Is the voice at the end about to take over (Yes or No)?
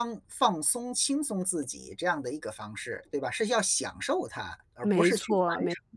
Yes